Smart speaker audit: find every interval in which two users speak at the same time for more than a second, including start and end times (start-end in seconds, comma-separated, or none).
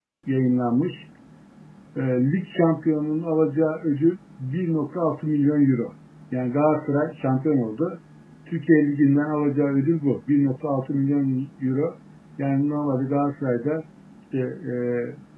none